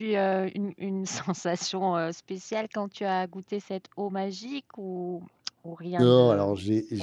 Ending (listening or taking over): taking over